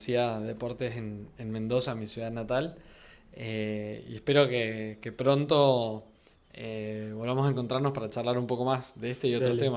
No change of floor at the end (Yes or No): No